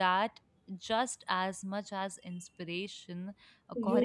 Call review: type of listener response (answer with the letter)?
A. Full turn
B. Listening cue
A